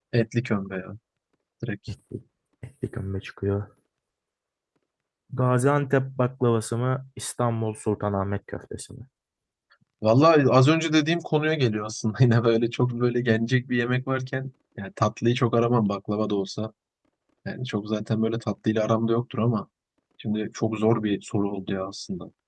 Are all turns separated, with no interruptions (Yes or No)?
Yes